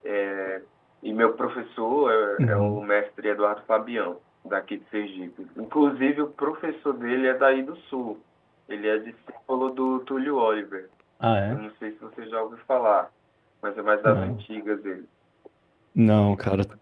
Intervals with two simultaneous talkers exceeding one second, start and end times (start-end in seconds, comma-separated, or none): none